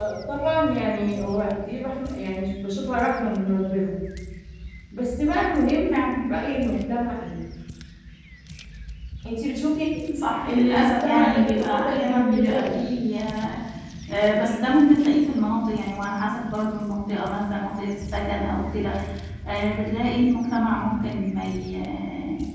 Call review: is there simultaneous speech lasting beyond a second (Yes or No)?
Yes